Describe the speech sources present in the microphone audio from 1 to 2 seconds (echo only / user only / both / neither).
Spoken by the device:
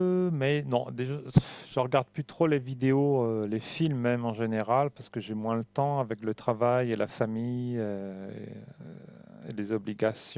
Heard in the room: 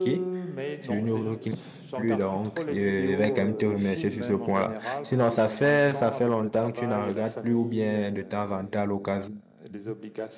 both